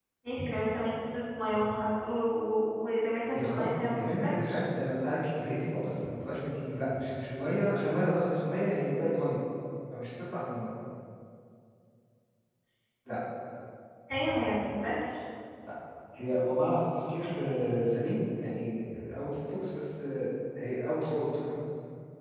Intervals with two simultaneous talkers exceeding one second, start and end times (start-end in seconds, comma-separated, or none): 3.3-4.6